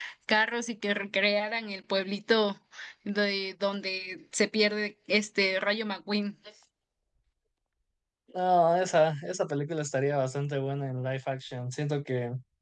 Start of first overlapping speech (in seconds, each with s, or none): none